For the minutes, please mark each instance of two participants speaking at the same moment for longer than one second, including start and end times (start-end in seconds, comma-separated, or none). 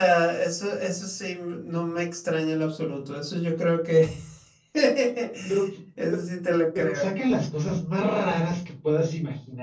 none